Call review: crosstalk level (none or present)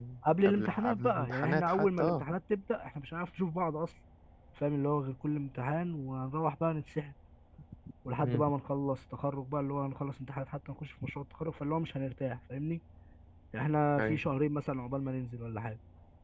present